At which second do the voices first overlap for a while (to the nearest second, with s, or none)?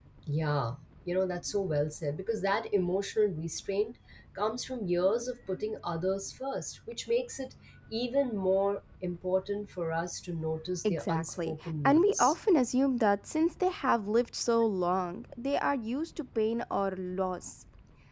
11 s